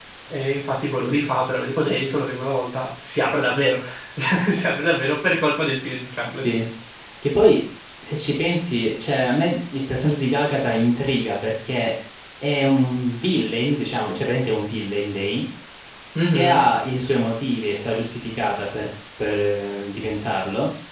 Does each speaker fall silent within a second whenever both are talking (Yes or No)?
Yes